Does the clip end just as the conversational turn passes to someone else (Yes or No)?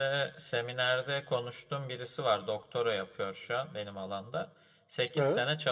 No